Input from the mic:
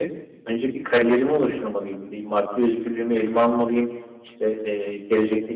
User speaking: No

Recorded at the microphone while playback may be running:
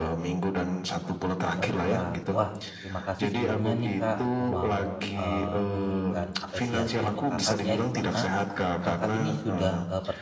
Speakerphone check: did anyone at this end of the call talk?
Yes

